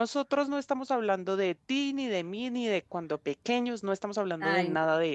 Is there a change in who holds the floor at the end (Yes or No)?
No